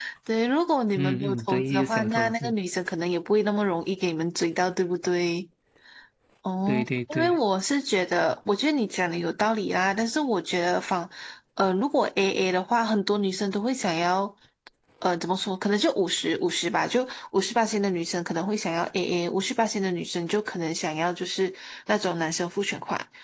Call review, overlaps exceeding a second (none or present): present